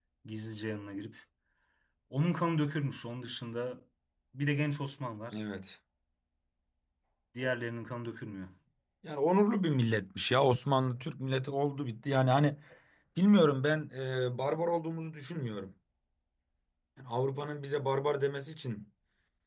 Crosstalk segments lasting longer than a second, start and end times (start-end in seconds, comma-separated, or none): none